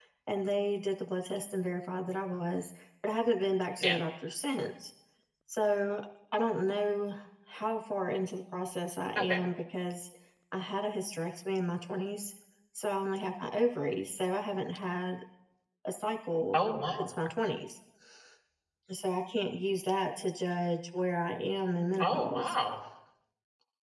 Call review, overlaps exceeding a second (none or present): none